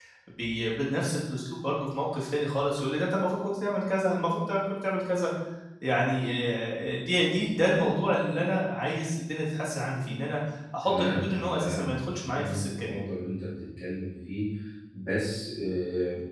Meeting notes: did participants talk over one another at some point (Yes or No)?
Yes